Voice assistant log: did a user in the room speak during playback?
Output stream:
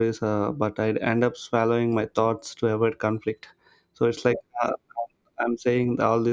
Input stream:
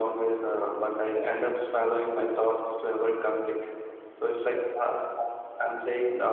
No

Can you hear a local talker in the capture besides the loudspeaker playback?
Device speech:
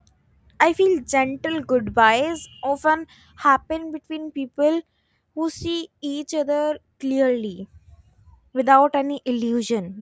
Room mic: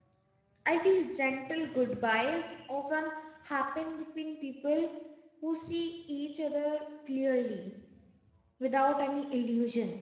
No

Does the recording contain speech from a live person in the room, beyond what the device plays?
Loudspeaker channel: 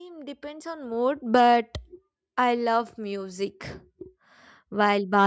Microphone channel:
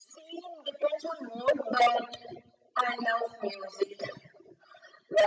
No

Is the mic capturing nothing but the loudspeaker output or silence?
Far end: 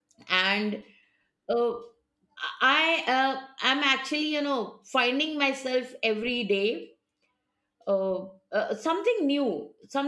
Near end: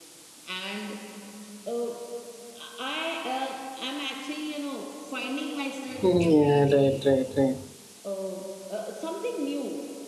No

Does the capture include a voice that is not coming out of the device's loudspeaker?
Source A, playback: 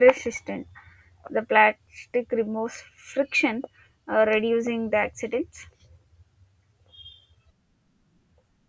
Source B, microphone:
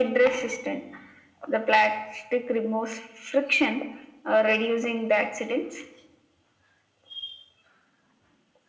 No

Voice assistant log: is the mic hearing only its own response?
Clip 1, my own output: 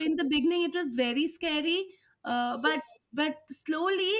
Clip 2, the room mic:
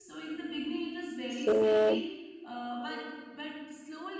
No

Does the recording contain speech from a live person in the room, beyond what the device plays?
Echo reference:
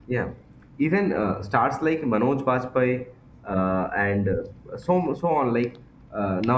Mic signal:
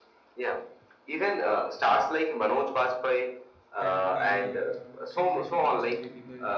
Yes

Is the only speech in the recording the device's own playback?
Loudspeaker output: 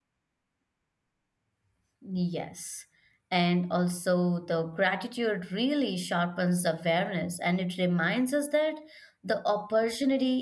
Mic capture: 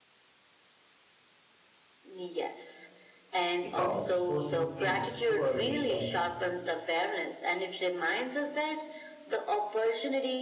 No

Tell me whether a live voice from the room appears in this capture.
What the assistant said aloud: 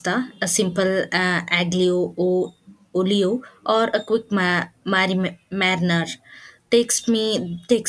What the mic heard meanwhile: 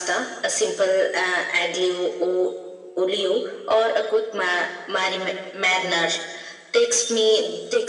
No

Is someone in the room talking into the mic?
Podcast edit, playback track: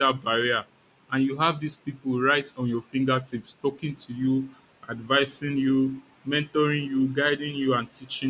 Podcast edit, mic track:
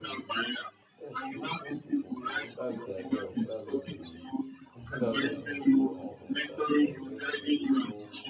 Yes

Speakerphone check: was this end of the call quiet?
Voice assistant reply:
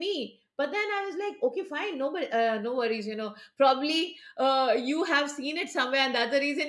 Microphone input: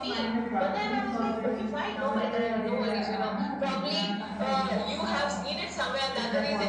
No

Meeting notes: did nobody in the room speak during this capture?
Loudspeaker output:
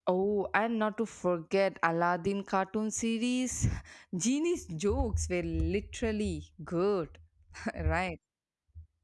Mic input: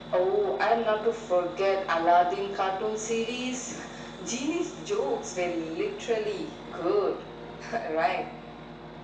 Yes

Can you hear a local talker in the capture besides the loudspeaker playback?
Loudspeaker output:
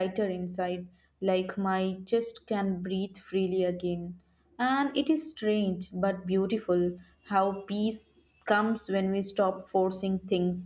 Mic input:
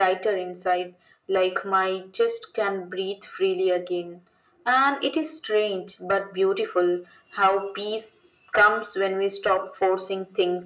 No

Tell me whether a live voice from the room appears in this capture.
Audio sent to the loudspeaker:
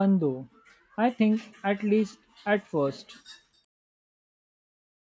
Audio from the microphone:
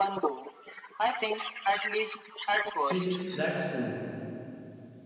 Yes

